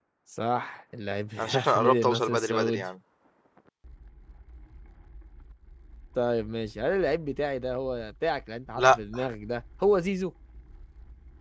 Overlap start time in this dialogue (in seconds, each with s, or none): 1.4 s